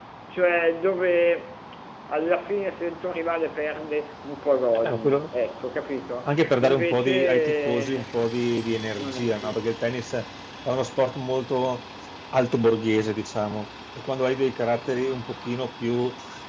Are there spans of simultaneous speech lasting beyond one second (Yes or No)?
Yes